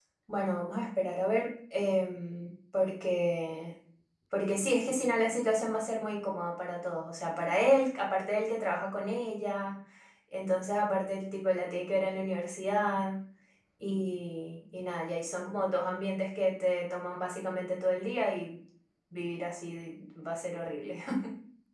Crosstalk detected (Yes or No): No